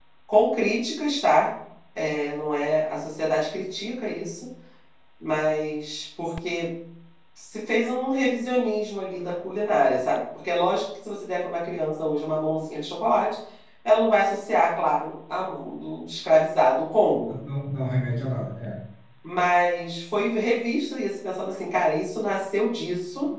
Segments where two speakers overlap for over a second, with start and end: none

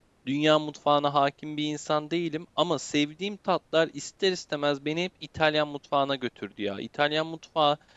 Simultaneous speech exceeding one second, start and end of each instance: none

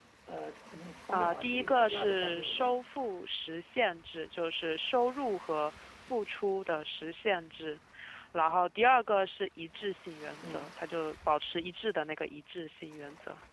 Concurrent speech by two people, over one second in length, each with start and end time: 1.1-2.8

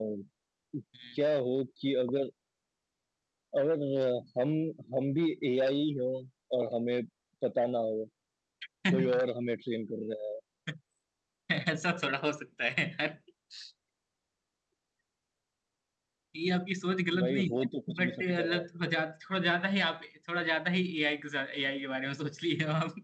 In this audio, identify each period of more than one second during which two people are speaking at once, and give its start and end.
17.2-18.6

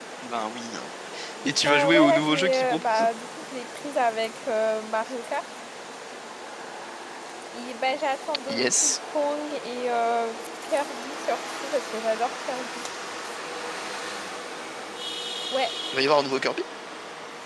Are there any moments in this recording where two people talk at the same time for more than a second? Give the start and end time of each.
1.7-3.1

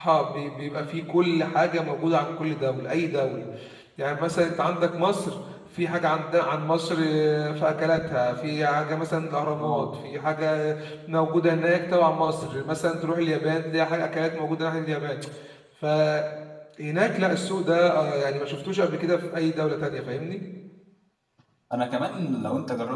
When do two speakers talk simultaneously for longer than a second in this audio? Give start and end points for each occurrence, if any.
none

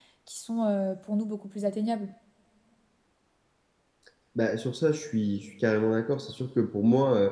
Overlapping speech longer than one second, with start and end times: none

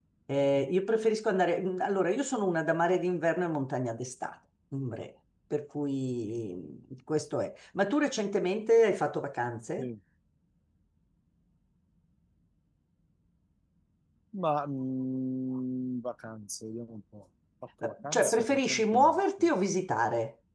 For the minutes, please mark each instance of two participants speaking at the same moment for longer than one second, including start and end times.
17.8-19.5

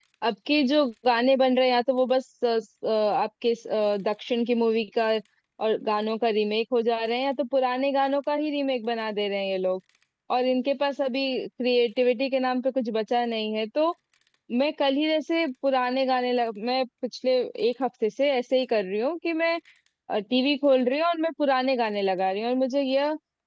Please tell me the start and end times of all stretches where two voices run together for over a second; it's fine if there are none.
none

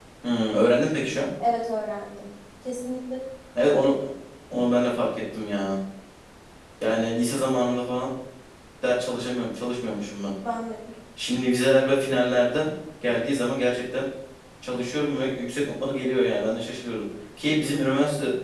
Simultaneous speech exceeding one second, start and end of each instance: none

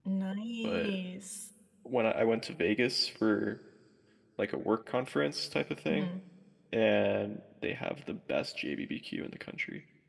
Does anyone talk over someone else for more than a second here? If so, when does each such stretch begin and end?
none

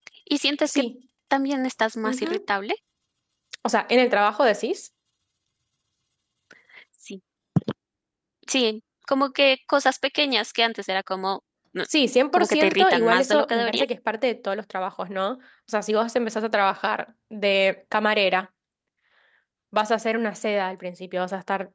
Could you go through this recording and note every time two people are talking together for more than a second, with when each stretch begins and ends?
12.3-13.8

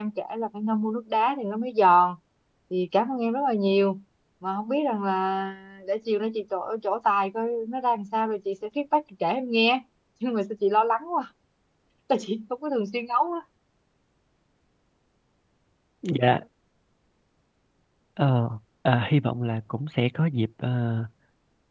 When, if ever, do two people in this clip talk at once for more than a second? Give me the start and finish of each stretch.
none

